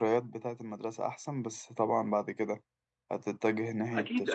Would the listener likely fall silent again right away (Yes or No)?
No